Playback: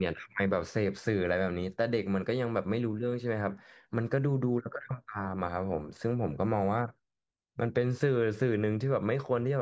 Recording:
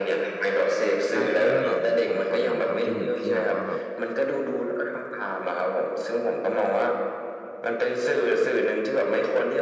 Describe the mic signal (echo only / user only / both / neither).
both